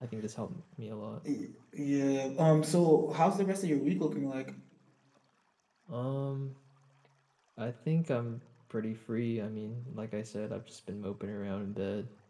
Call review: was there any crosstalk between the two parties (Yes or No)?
No